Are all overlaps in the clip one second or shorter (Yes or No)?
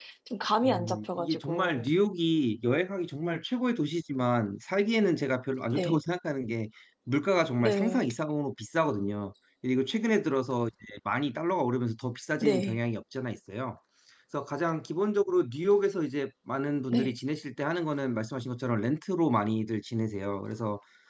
No